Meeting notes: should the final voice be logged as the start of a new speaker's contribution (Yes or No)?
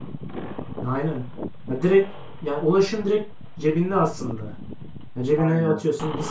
No